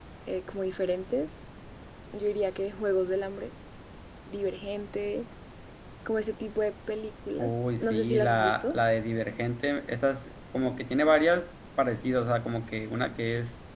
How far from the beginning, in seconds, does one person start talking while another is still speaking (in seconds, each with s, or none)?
7.4 s